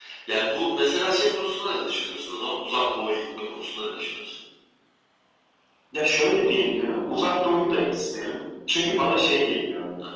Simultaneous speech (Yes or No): No